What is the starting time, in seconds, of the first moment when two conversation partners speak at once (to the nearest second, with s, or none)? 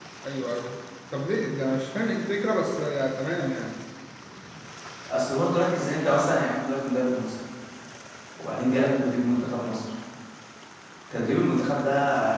none